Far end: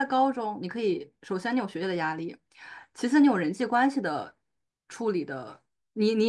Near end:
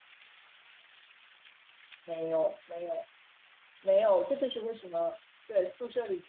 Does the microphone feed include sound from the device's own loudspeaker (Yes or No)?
No